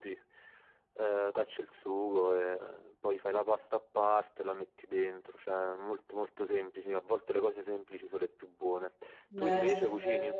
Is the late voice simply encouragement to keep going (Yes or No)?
No